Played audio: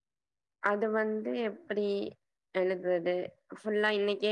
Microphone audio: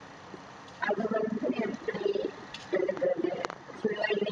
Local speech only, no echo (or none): none